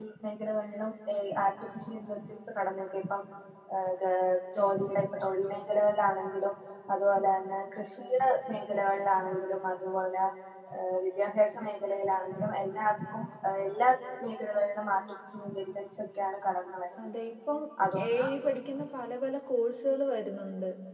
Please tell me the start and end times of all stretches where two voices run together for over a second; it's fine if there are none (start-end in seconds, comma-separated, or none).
none